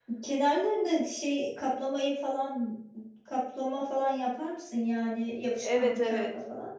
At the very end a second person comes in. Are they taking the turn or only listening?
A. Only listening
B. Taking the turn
B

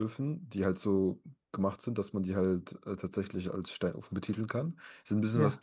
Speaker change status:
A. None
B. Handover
A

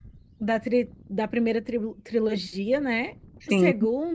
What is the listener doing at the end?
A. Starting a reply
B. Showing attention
B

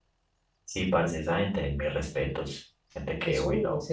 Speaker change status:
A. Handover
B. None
A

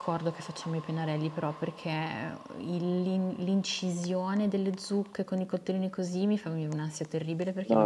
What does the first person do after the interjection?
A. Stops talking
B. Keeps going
A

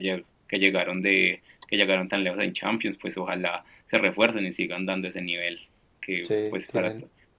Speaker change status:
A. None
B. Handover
A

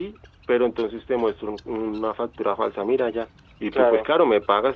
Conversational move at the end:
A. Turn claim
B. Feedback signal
B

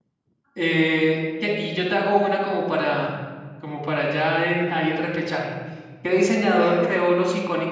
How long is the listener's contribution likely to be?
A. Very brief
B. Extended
A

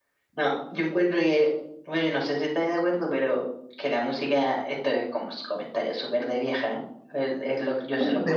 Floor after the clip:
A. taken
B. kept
B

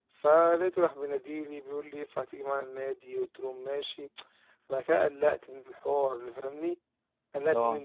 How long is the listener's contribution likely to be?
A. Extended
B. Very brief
B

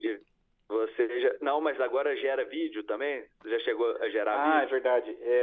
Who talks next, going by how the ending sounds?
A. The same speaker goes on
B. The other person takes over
B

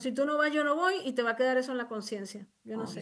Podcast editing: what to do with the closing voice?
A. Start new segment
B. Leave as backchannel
A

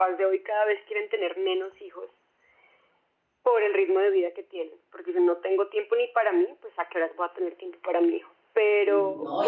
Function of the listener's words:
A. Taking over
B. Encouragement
A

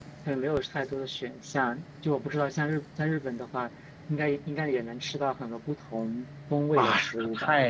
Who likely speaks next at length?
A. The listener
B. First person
A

